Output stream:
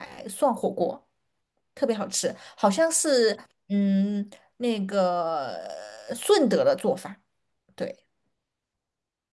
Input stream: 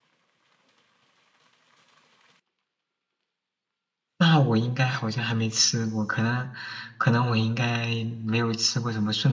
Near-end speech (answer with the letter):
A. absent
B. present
B